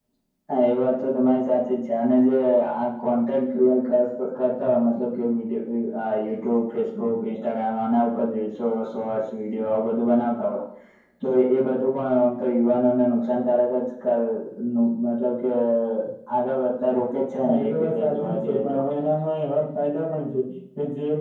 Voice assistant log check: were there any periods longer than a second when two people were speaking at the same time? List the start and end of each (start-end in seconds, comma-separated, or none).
17.4-18.8